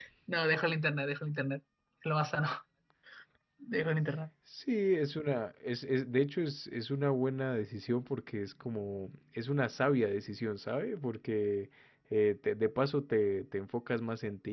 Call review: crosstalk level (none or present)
none